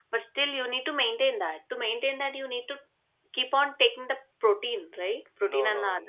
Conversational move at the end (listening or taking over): taking over